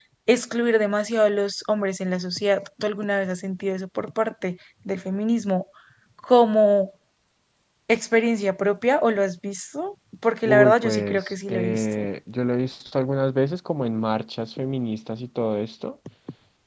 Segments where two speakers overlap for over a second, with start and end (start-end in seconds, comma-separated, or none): 10.4-12.0